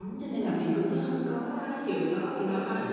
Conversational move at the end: taking over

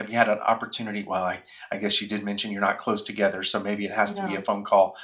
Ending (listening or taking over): listening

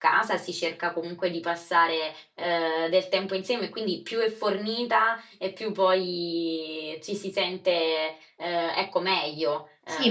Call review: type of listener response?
taking over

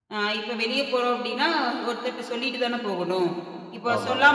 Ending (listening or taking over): listening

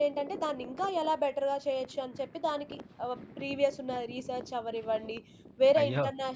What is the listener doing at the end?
listening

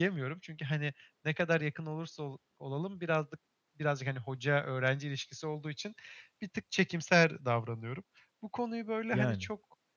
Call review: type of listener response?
listening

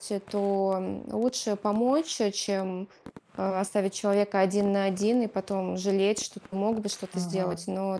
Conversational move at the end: listening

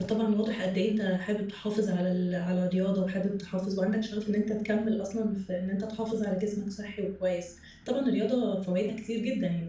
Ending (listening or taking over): listening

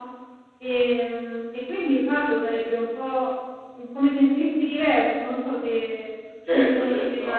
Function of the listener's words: taking over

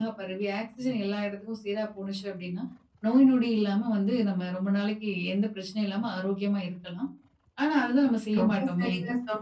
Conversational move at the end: taking over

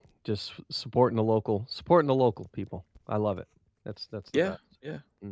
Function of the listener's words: taking over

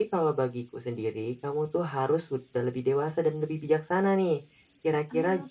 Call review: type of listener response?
listening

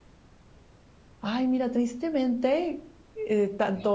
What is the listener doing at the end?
listening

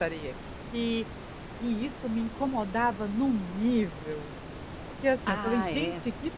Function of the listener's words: listening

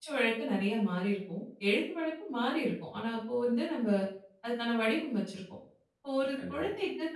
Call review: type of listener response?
listening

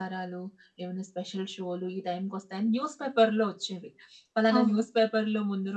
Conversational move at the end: listening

